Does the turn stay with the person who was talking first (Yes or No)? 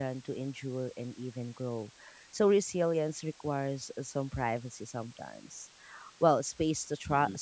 Yes